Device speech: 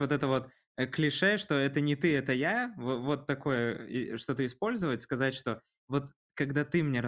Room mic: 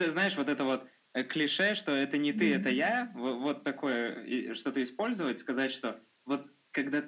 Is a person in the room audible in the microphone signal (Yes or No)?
Yes